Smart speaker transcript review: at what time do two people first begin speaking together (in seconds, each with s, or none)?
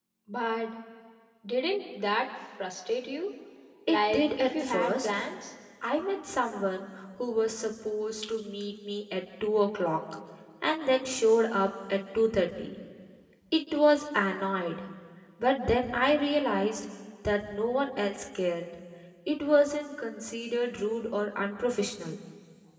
3.9 s